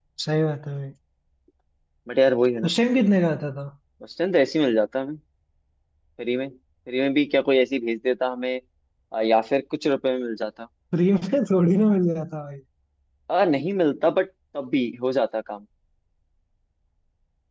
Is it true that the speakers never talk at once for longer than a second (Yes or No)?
Yes